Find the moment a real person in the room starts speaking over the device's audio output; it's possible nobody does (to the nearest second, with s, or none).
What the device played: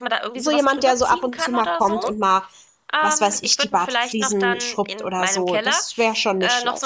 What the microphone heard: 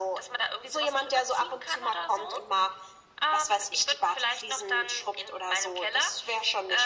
none